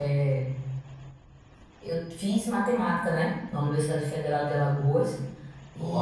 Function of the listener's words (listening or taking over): listening